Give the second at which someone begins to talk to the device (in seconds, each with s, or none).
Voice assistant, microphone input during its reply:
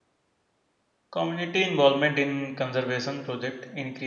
1.1 s